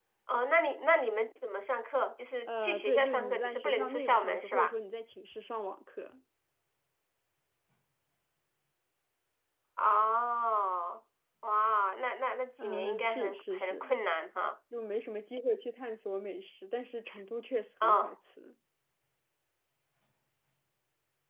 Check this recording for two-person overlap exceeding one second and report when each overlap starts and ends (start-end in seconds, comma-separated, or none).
2.5-4.7, 12.6-13.8